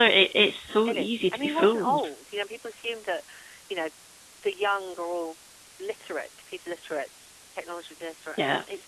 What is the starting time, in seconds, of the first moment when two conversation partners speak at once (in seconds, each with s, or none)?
0.8 s